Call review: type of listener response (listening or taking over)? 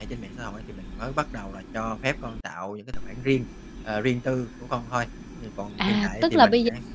taking over